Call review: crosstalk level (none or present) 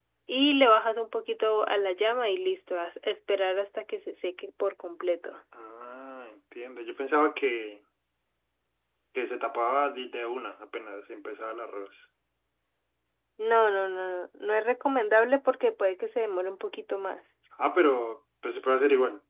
none